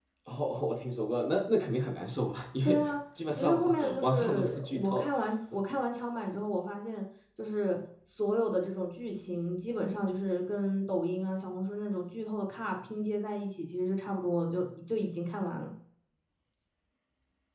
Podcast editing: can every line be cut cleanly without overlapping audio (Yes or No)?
No